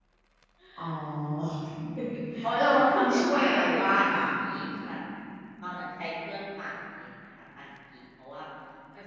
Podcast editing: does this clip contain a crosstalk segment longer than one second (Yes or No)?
Yes